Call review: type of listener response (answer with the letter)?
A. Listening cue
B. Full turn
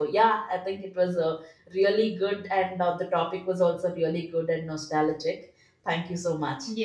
B